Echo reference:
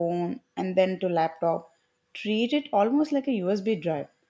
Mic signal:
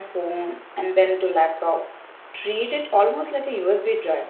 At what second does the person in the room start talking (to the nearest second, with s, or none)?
none